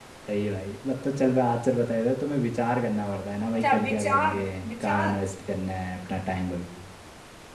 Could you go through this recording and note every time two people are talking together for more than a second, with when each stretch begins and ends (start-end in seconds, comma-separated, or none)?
3.5-5.2